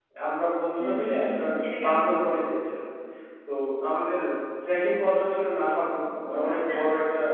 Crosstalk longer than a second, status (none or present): present